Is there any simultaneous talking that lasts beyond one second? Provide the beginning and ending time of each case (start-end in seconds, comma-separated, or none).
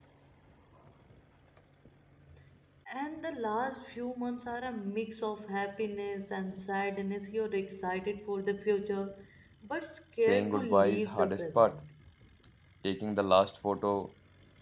10.2-11.8